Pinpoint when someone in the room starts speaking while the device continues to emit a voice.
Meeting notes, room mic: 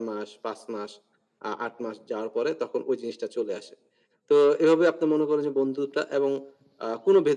none

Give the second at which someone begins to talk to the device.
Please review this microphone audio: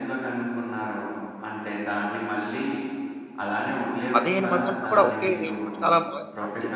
4.1 s

